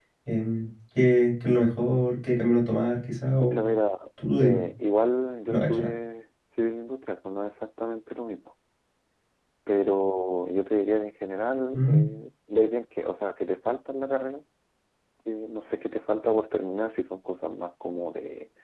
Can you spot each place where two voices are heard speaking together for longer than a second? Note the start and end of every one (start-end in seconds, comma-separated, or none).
none